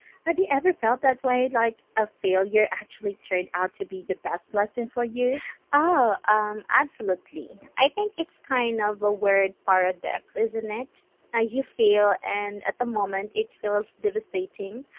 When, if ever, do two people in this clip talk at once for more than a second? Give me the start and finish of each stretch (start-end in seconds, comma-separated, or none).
none